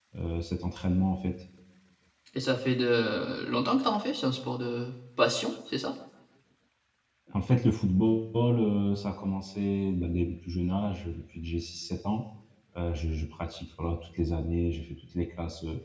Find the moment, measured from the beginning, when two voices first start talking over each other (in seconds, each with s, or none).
none